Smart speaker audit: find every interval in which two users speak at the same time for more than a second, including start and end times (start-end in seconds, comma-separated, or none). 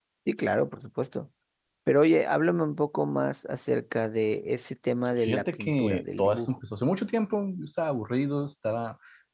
5.2-6.6